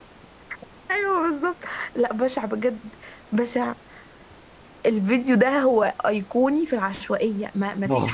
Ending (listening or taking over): listening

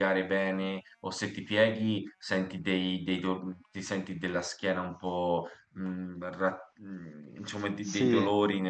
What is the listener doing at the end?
listening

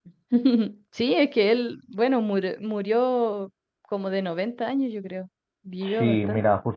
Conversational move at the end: taking over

